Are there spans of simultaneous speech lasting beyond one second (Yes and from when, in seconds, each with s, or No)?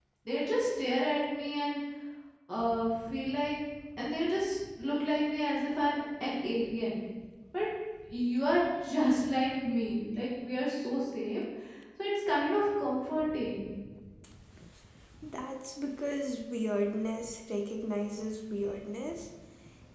No